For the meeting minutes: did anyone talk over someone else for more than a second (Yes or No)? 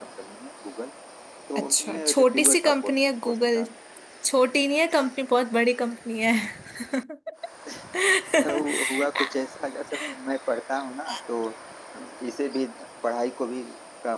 Yes